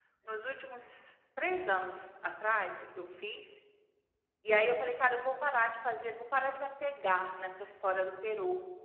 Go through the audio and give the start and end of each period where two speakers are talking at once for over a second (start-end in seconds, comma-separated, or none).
none